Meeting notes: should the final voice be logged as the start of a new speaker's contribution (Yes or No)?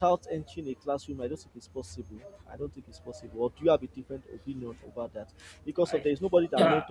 No